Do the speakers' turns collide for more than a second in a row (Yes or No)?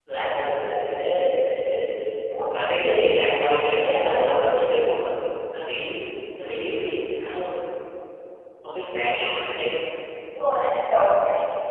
No